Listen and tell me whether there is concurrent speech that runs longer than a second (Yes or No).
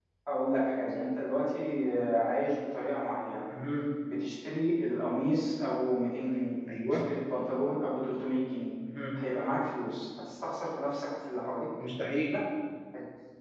No